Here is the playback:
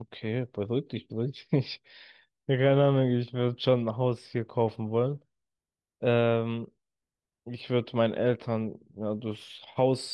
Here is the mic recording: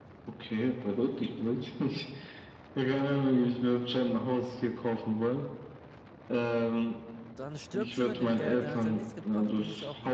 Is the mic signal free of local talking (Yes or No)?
No